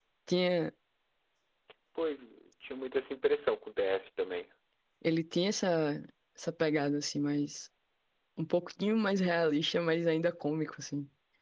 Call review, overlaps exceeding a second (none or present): none